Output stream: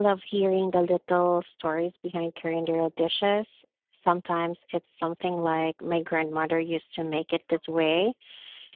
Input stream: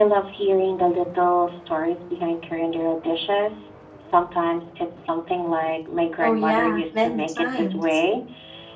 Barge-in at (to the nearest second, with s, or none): 6 s